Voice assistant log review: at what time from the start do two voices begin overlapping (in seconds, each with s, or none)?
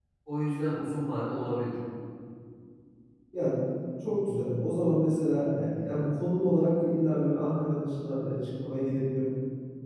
none